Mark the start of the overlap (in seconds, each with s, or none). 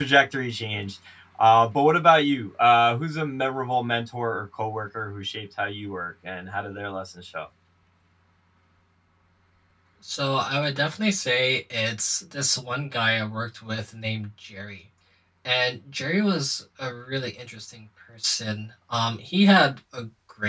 none